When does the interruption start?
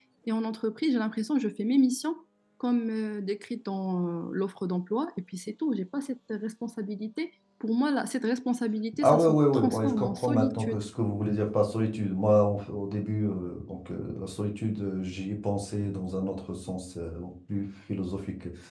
9.0 s

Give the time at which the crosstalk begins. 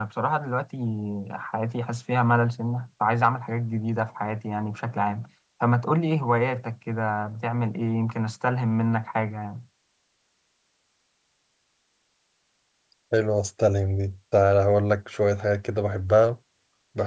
none

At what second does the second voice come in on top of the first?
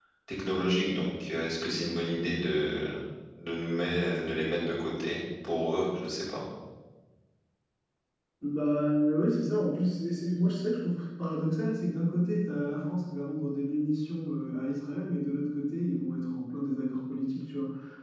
none

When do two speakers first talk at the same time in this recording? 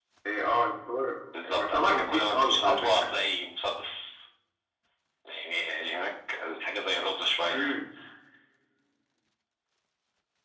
1.3 s

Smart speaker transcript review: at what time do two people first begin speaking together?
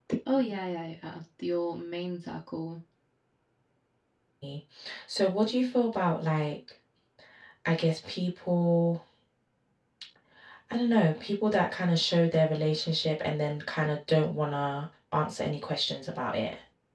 none

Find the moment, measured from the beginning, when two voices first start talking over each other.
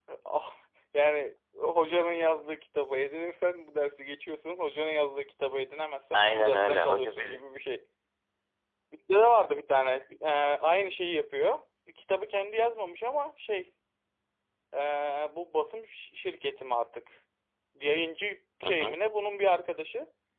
6.1 s

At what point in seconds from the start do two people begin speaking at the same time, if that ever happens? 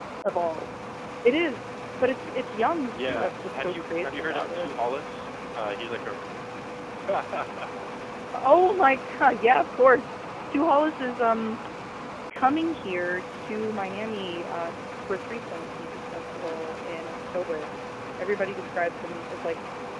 2.9 s

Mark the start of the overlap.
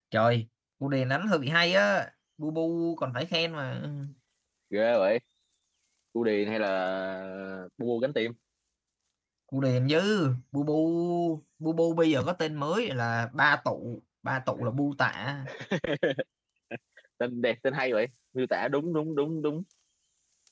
none

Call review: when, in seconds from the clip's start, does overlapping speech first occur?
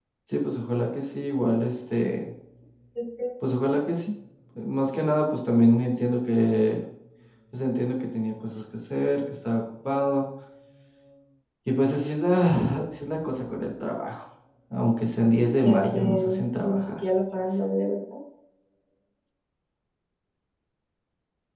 15.6 s

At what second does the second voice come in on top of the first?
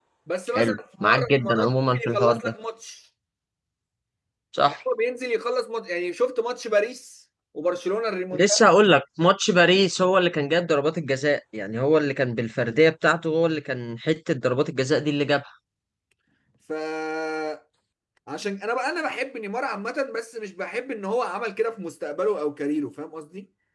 0.6 s

